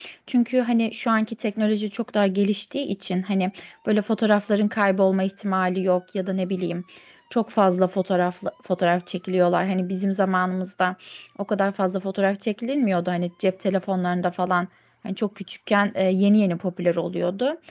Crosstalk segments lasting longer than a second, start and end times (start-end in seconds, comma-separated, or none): none